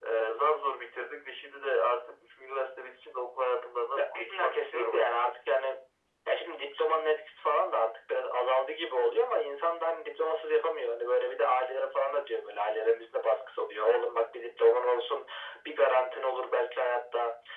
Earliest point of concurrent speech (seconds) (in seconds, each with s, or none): 4.0 s